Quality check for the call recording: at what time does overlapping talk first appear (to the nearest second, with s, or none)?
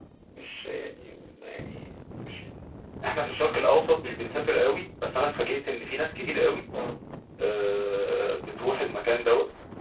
none